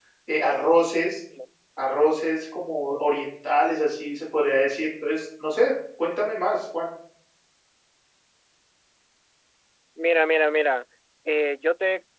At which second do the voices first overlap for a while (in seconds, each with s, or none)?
none